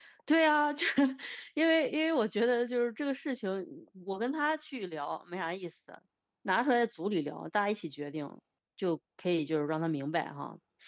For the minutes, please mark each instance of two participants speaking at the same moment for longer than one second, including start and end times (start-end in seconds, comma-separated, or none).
none